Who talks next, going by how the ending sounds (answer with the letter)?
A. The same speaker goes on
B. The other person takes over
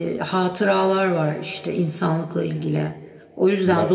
A